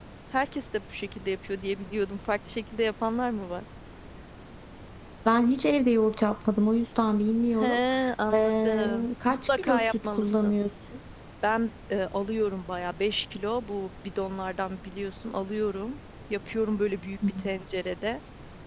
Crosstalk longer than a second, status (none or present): present